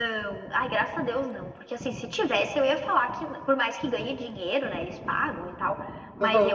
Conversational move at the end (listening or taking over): listening